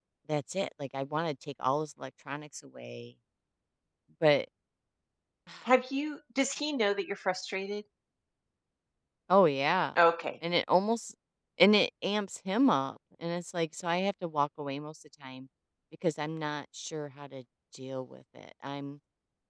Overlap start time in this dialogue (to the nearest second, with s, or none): none